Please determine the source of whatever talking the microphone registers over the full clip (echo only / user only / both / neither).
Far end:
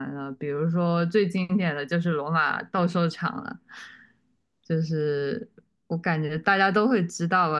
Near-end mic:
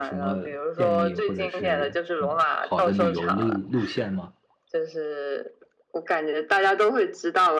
both